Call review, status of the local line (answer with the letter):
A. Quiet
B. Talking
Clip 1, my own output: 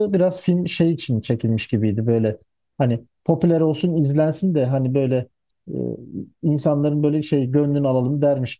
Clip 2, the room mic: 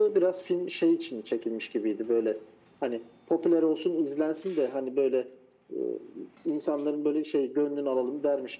A